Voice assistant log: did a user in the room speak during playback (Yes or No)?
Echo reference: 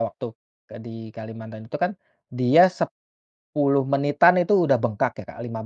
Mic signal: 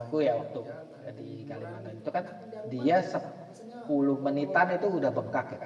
Yes